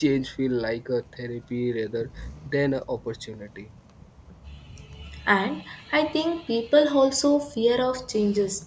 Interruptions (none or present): none